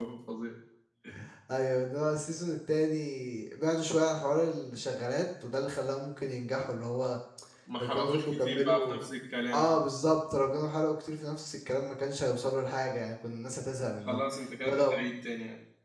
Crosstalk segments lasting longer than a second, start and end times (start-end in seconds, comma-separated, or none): 7.8-9.1